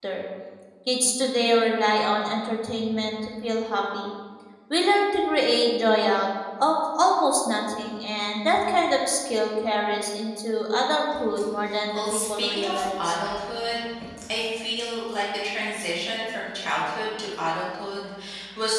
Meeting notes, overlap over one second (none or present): present